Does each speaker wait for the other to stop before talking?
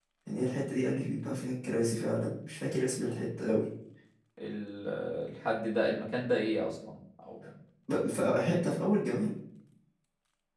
Yes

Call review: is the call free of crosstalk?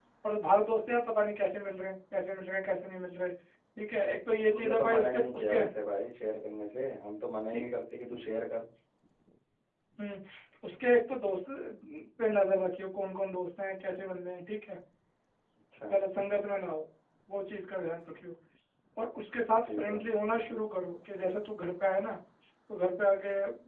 No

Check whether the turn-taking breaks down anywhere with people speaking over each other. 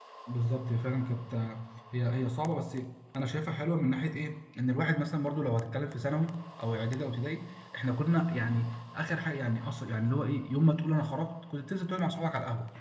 No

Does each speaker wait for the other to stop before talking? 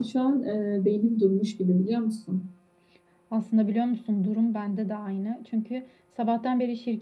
Yes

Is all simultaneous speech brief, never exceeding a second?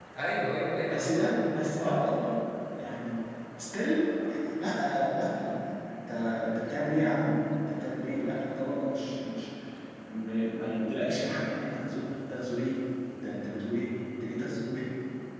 Yes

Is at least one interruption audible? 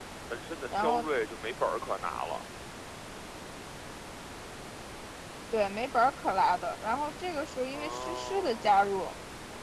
Yes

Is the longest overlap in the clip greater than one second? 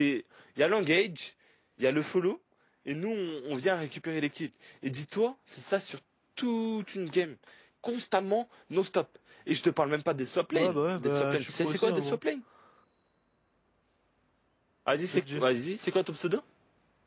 Yes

